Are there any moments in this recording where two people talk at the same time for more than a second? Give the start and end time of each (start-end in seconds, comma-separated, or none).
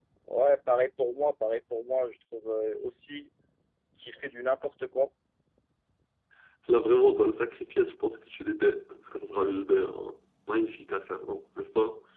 none